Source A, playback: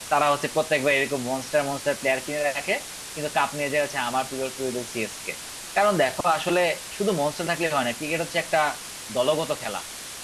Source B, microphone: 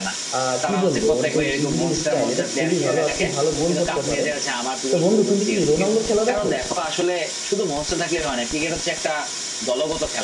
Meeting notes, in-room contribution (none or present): present